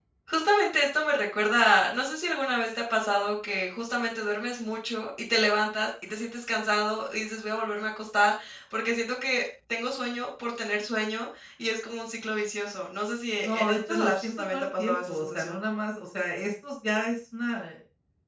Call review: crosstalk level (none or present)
present